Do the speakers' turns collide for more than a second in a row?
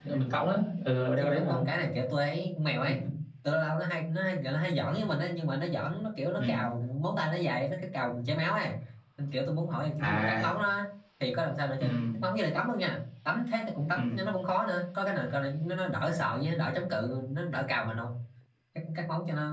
No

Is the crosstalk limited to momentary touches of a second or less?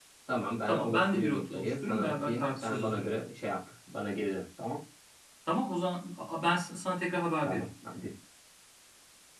No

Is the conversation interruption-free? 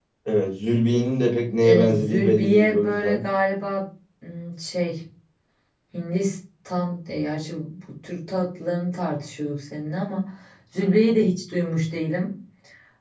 No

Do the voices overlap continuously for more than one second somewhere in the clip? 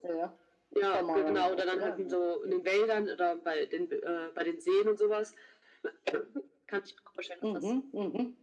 Yes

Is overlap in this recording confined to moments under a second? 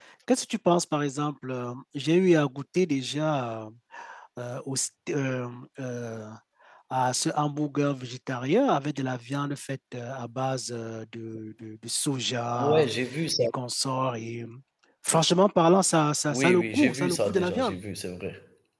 No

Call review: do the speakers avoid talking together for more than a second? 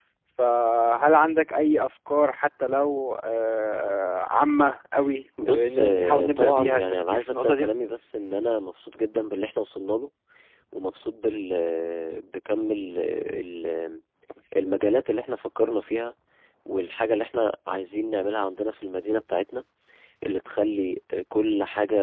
No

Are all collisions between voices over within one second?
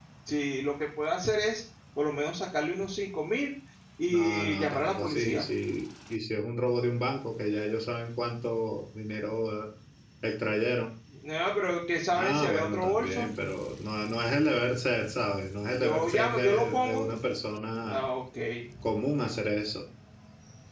No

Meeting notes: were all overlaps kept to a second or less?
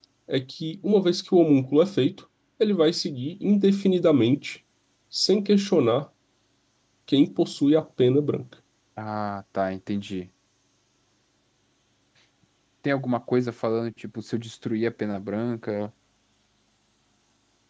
Yes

